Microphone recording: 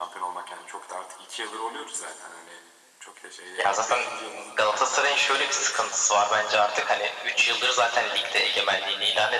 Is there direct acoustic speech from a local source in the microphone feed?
No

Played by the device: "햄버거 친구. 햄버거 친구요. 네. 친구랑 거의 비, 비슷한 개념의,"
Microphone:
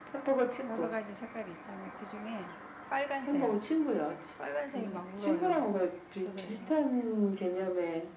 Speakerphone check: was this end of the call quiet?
No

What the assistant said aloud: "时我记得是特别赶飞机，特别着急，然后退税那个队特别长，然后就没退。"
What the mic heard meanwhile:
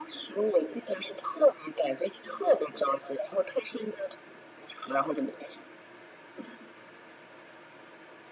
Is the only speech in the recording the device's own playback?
Yes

